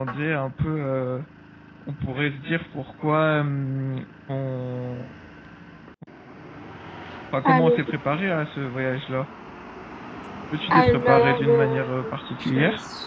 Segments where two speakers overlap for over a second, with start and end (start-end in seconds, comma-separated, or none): 10.7-11.9